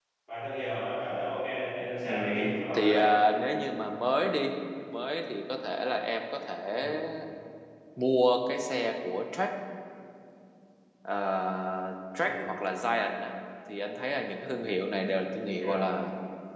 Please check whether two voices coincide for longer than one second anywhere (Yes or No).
Yes